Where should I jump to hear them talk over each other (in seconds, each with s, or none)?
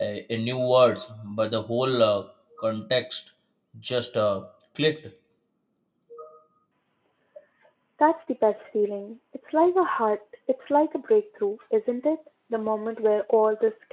none